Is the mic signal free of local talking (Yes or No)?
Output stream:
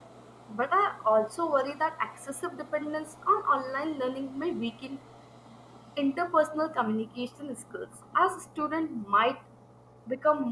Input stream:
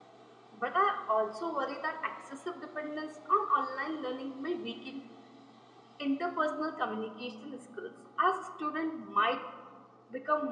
Yes